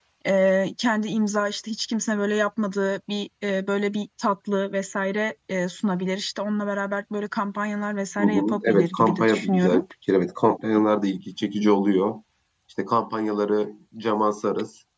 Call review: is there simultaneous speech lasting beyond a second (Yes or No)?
Yes